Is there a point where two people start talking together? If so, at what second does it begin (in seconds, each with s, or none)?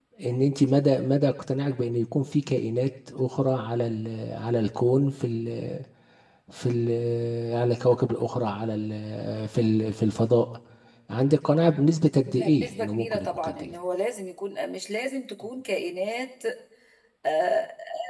12.2 s